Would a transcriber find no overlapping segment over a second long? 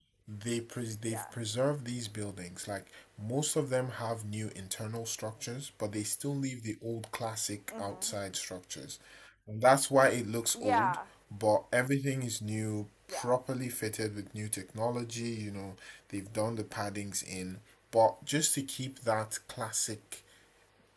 Yes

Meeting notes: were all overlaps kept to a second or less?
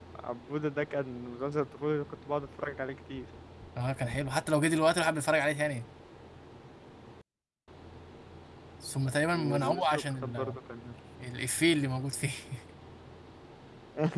No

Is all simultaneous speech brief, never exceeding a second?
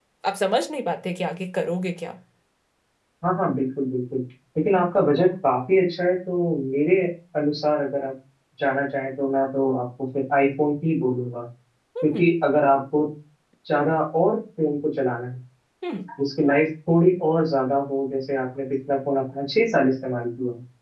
Yes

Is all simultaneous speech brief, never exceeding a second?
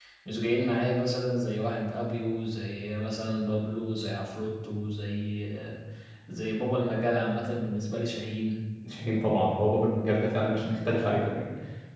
Yes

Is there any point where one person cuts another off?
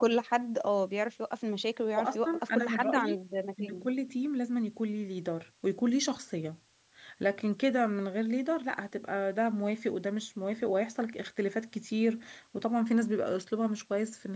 Yes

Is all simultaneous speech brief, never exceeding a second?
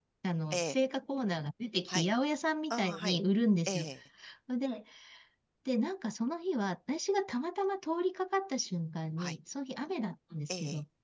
Yes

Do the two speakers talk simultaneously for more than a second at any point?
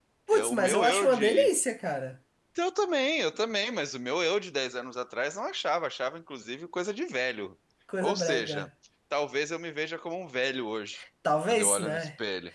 Yes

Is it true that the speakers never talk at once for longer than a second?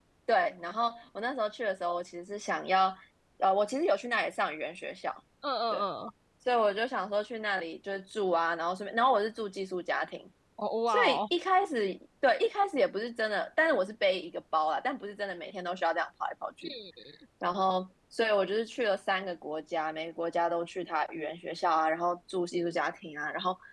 Yes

